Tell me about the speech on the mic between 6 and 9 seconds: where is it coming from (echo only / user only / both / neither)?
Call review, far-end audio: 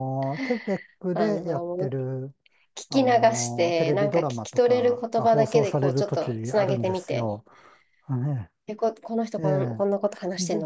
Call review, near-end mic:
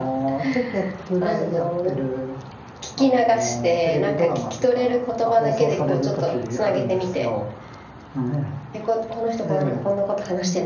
echo only